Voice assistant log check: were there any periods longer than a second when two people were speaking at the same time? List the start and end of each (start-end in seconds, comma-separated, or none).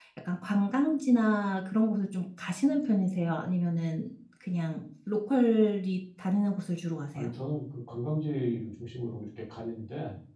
none